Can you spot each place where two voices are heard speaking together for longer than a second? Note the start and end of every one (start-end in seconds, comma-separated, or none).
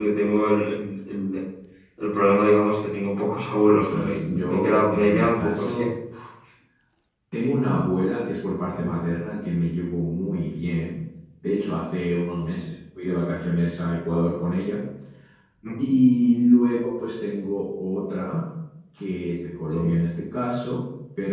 3.7-5.8